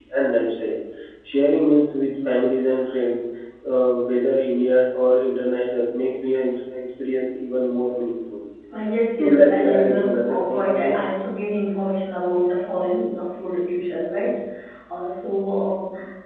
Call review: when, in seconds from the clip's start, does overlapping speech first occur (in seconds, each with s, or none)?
9.2 s